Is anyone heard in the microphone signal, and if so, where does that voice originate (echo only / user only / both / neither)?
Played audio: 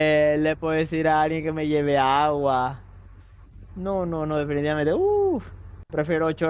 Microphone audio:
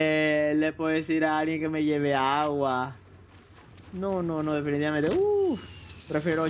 echo only